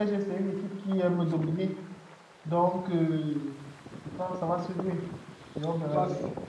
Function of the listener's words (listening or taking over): taking over